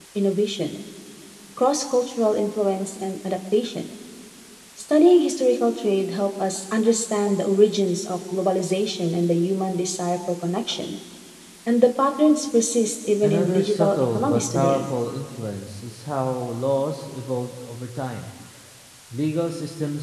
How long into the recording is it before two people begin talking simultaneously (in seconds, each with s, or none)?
13.2 s